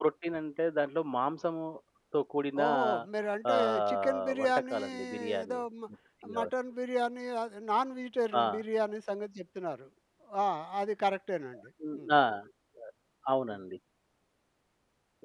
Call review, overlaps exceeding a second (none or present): present